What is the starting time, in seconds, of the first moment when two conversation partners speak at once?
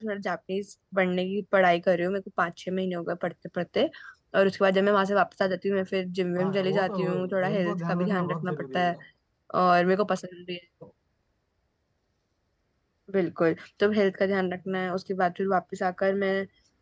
6.4 s

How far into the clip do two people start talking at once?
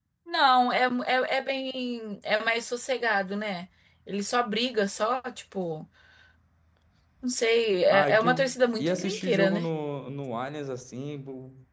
7.9 s

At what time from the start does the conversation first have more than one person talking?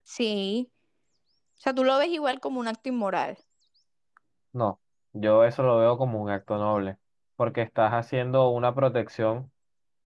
none

